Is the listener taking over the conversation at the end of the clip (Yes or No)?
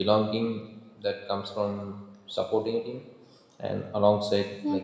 No